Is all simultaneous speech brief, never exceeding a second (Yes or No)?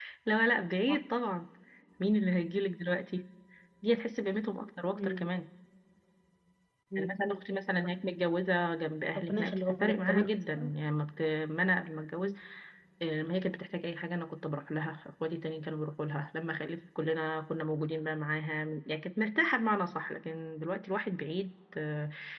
No